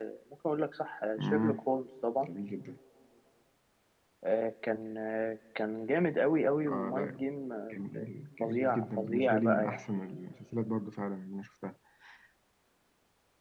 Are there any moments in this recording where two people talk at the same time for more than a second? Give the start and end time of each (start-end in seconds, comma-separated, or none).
8.4-10.0